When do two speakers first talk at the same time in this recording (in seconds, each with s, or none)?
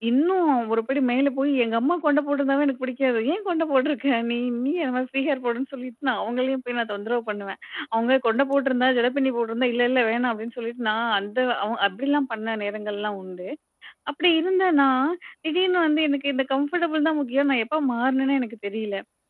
none